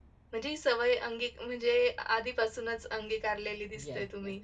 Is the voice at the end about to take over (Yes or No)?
Yes